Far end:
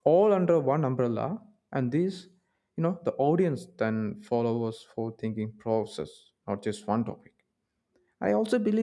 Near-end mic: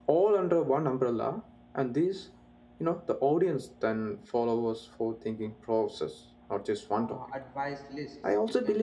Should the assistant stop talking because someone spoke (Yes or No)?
Yes